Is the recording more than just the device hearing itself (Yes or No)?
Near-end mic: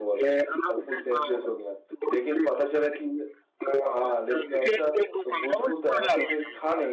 Yes